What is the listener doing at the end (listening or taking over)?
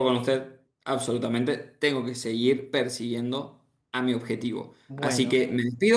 listening